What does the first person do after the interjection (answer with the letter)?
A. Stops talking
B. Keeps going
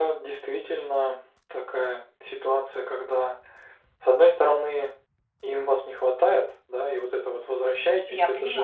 B